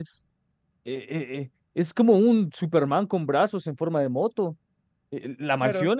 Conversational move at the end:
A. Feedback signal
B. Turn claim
A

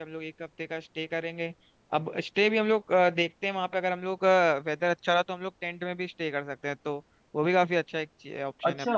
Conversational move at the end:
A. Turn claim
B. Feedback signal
A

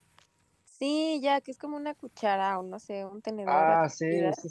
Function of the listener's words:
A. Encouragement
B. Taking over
B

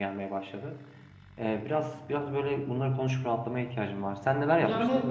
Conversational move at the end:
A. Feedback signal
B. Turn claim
B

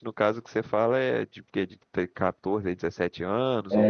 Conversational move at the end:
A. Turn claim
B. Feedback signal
A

